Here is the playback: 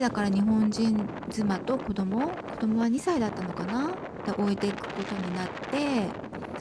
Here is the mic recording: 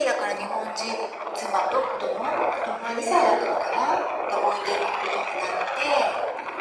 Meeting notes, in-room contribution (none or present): none